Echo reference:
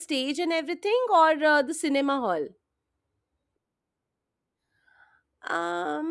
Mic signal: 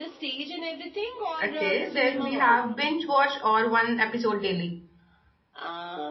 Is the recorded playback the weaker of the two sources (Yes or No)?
Yes